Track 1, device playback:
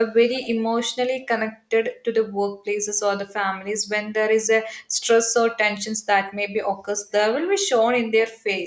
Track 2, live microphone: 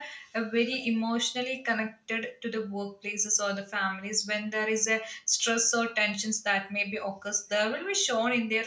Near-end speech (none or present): none